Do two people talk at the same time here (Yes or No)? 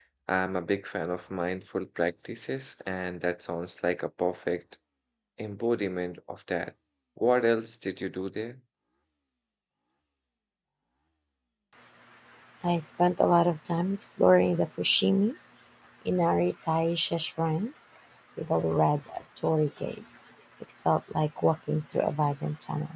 No